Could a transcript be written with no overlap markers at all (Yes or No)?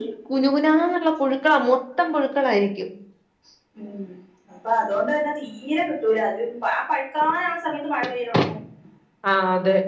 Yes